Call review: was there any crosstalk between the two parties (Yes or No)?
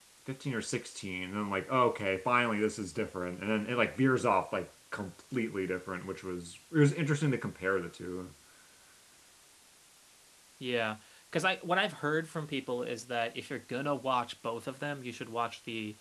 No